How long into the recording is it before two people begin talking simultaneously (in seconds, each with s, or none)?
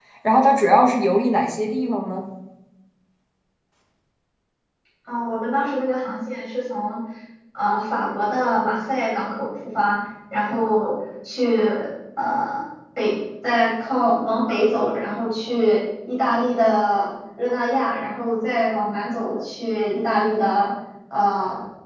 none